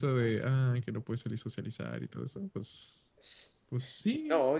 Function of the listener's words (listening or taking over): taking over